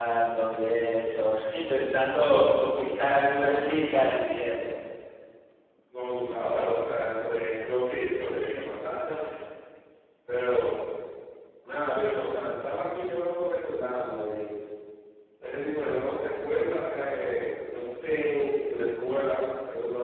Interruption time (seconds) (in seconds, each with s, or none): none